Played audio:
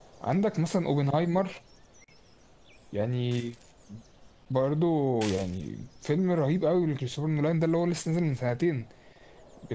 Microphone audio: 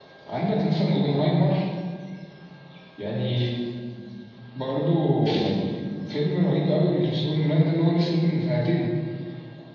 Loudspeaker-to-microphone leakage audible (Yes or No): Yes